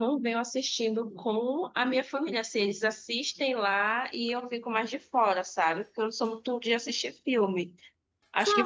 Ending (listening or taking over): taking over